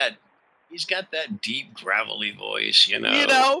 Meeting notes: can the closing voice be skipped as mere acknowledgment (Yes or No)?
No